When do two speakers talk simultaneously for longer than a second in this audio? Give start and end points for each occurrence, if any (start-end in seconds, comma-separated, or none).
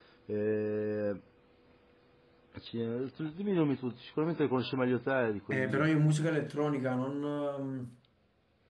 none